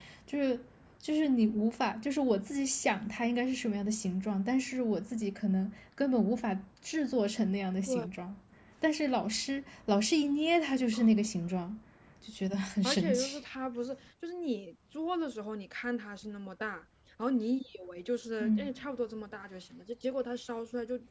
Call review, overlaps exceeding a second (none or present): none